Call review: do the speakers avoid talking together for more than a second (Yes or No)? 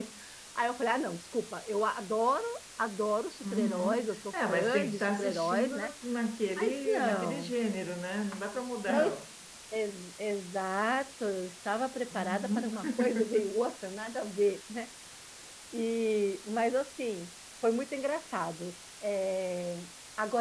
No